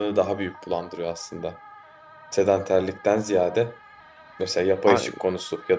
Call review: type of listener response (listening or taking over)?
listening